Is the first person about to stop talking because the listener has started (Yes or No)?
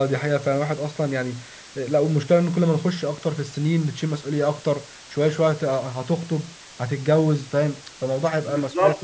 Yes